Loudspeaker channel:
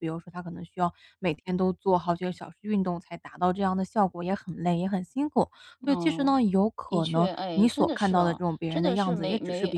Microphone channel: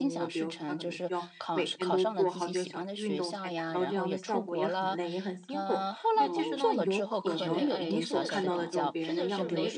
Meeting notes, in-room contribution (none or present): present